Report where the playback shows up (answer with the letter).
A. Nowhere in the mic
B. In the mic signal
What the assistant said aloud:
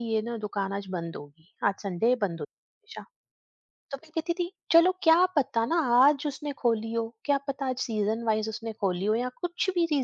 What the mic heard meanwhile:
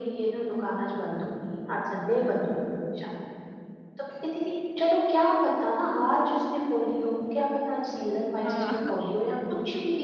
B